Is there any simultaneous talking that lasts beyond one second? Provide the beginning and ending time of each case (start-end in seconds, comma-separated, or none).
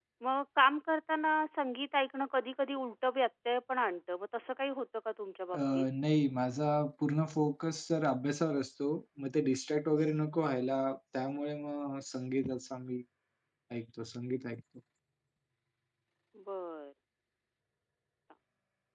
none